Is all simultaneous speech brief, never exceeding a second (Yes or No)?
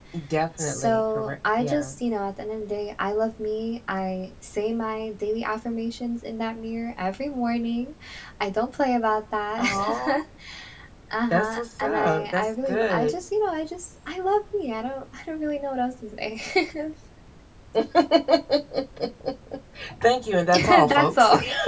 No